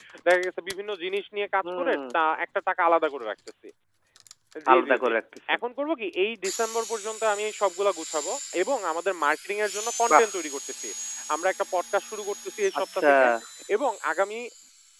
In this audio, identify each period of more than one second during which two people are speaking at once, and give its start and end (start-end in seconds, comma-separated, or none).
none